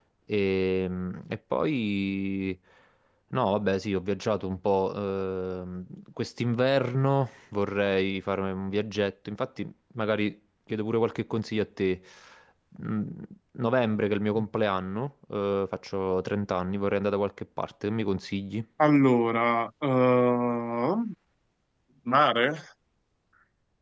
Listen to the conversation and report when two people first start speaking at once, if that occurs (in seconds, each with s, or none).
none